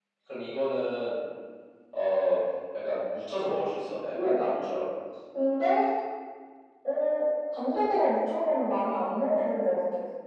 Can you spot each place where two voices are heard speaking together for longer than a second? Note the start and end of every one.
none

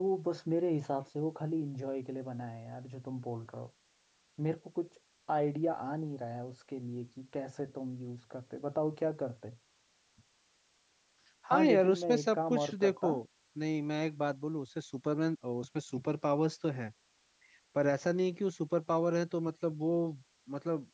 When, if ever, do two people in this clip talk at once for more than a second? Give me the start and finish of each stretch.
11.5-13.1

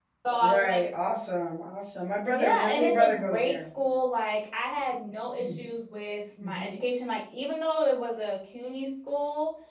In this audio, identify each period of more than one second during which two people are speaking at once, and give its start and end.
2.3-3.7

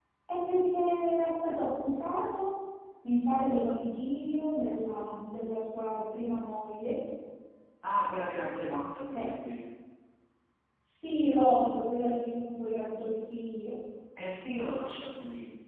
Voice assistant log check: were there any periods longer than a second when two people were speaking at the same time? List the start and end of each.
none

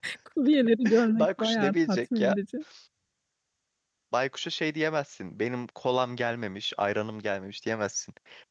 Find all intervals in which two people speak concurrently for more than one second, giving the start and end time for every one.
1.1-2.4

